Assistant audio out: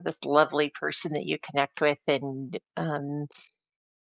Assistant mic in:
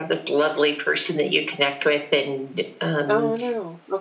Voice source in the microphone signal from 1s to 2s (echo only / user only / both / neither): echo only